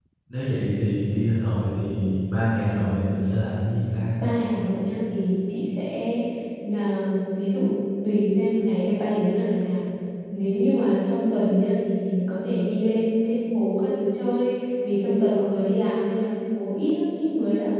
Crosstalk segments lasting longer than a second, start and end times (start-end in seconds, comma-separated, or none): none